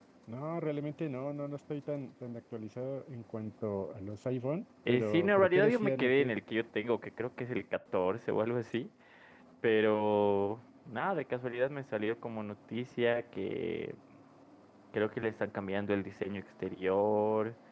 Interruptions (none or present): present